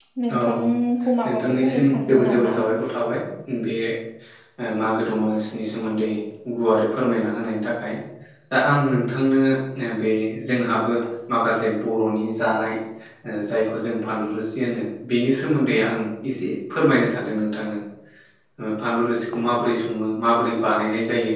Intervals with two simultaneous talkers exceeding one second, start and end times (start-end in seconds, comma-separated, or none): 1.3-2.6